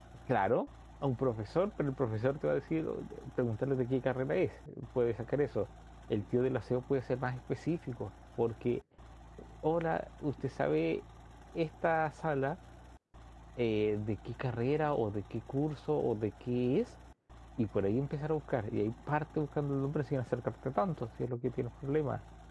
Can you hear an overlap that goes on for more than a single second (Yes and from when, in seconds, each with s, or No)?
No